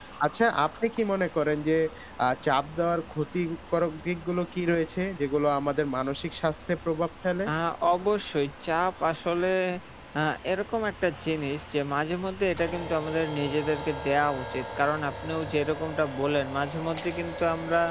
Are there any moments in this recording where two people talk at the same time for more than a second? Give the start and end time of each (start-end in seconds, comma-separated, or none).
none